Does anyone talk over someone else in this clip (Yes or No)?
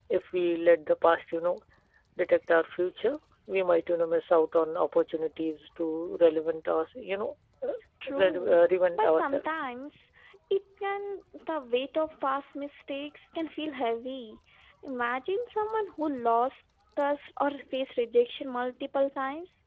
Yes